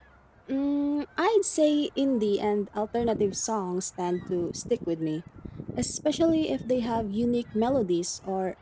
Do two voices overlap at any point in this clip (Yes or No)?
No